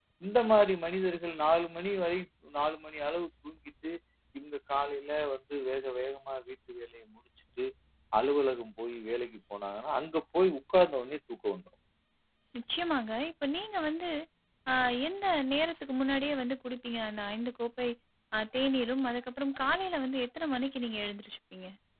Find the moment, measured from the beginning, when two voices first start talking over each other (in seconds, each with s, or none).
none